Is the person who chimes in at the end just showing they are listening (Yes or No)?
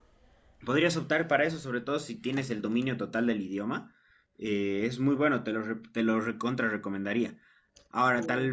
Yes